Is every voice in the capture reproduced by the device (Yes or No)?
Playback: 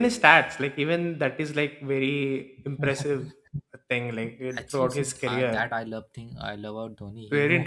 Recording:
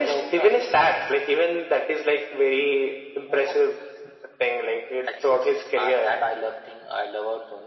Yes